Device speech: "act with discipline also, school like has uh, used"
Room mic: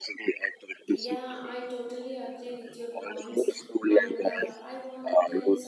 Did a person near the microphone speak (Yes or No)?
Yes